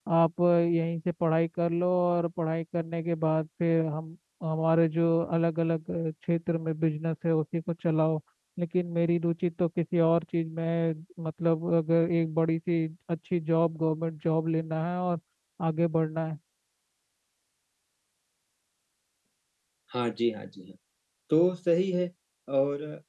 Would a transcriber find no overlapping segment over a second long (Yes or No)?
Yes